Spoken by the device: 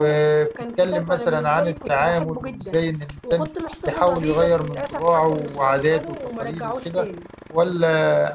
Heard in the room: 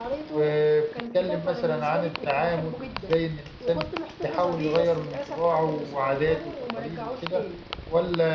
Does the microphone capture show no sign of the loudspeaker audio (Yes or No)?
No